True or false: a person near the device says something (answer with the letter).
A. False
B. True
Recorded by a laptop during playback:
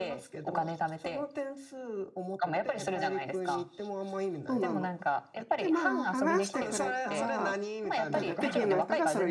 B